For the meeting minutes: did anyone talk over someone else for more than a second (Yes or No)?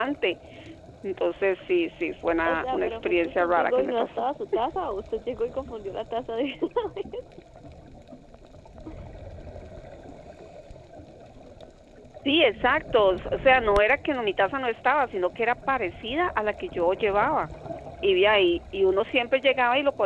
Yes